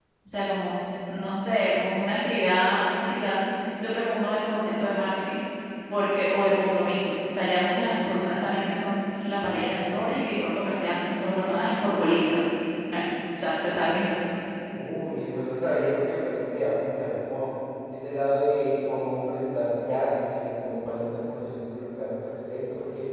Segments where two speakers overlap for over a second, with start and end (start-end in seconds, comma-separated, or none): none